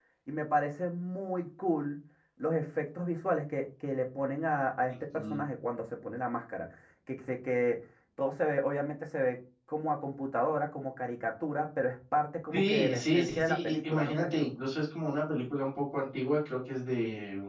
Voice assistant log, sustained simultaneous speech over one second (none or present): present